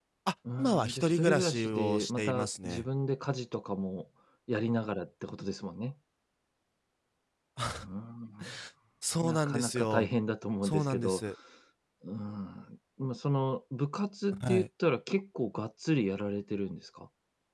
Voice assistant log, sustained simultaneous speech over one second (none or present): present